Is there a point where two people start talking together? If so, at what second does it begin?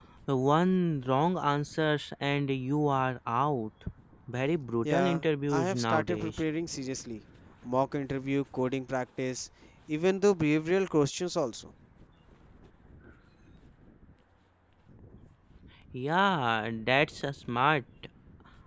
4.8 s

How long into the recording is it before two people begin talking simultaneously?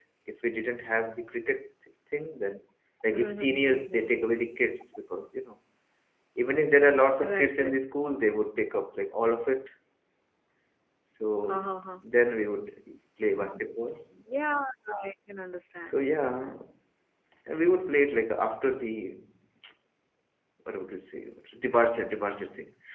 3.1 s

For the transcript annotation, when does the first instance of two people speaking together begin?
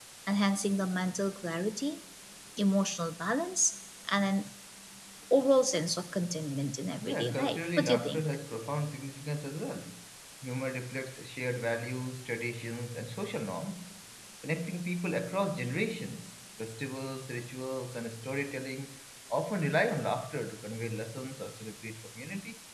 7.0 s

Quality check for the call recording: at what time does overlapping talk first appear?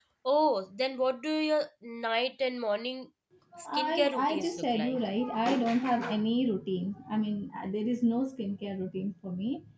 3.7 s

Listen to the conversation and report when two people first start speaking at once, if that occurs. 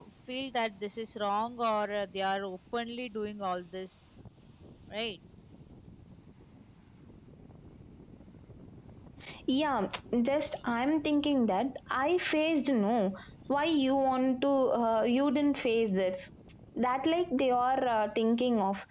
none

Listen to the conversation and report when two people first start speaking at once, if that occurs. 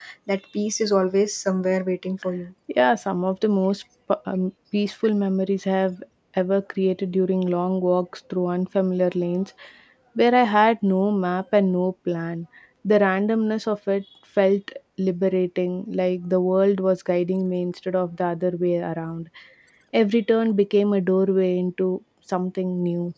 none

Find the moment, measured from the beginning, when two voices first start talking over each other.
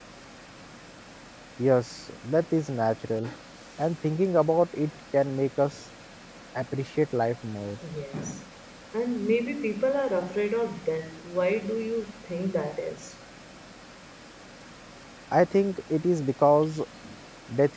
none

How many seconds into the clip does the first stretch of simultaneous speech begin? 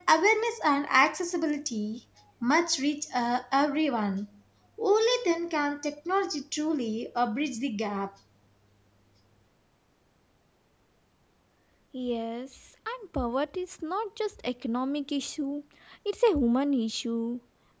none

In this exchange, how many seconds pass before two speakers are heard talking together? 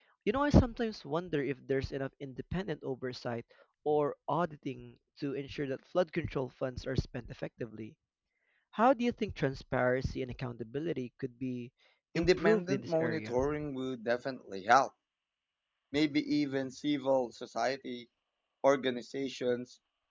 12.2 s

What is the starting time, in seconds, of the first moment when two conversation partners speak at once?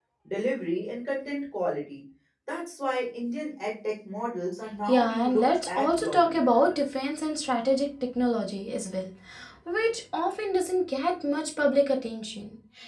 4.9 s

